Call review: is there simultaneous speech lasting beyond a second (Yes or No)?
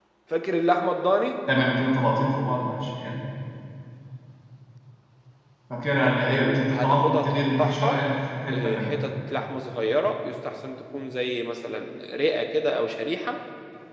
Yes